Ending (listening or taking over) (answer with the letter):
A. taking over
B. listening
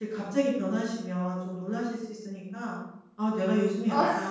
B